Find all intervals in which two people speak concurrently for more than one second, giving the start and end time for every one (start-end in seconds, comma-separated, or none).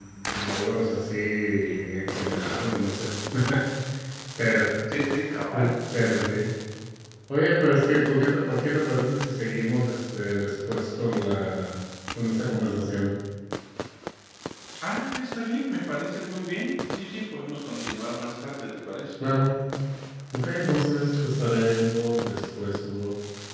none